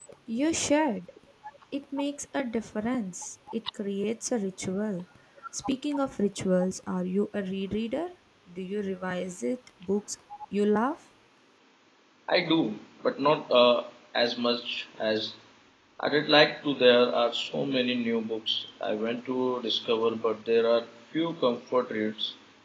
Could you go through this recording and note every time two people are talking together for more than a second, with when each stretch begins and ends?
none

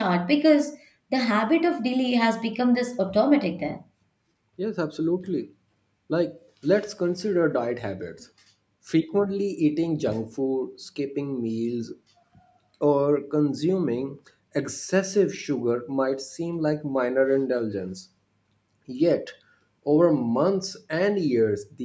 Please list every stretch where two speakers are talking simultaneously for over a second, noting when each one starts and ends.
none

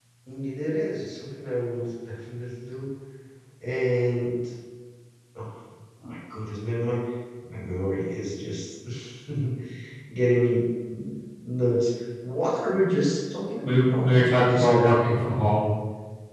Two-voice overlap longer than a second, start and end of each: 13.6-14.9

